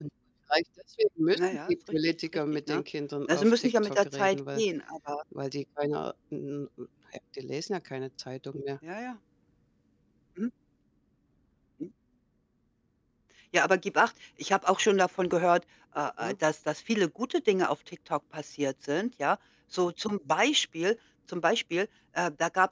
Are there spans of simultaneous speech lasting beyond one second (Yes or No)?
Yes